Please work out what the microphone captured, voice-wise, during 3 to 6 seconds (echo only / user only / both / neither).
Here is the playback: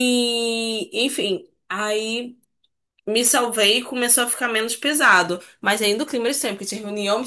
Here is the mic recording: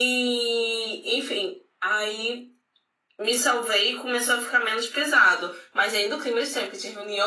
echo only